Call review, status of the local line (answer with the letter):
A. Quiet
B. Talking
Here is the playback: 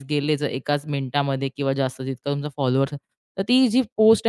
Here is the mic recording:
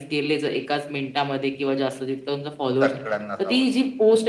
B